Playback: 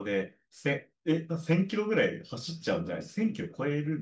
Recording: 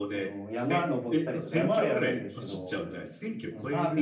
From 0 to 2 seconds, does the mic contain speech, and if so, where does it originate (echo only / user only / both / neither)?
both